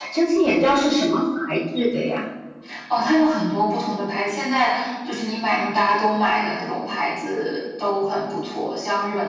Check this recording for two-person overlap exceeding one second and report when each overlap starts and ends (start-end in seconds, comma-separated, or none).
none